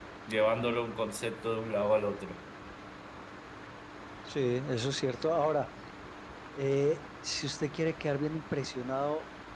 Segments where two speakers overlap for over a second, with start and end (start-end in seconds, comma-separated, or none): none